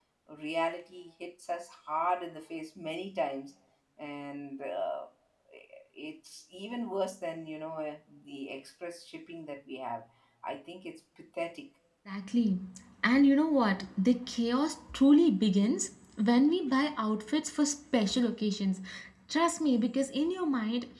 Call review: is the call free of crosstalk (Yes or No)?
Yes